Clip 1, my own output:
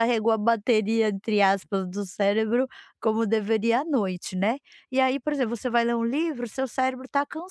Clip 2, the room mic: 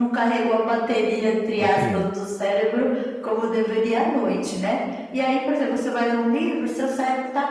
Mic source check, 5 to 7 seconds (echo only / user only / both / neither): echo only